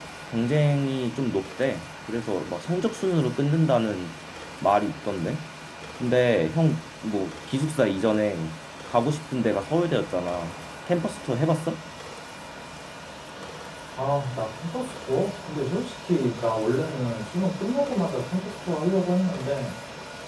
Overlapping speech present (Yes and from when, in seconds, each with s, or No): No